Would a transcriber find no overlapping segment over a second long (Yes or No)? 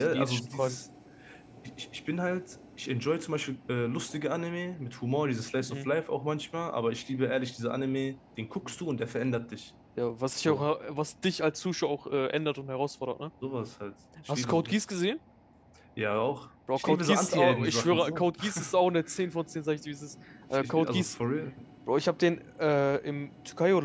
No